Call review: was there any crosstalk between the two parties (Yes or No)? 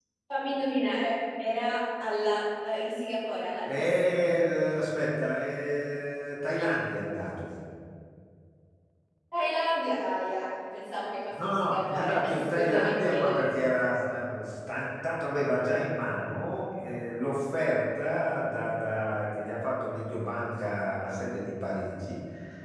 Yes